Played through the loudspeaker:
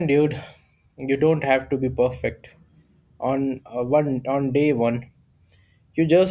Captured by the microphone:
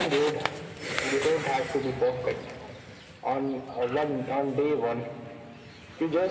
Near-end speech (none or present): none